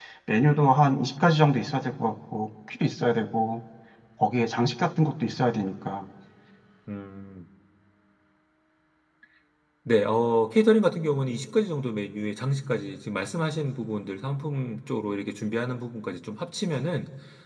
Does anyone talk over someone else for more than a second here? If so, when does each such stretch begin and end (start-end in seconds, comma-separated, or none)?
none